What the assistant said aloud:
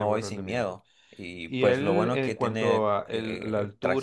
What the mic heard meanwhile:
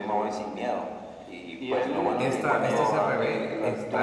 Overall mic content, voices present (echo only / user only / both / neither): both